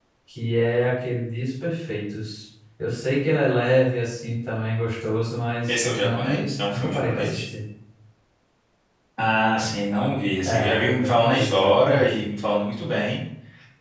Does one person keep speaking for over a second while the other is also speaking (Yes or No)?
Yes